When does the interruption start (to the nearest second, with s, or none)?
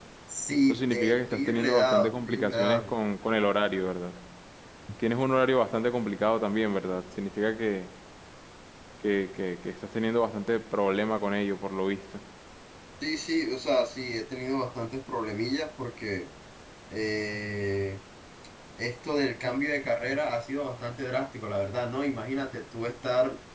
1 s